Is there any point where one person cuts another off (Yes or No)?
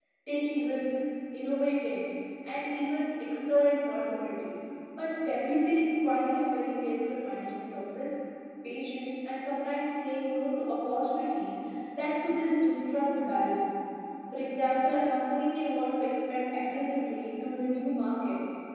No